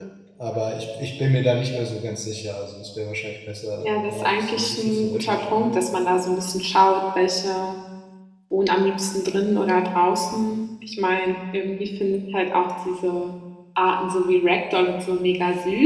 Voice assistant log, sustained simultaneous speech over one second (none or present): present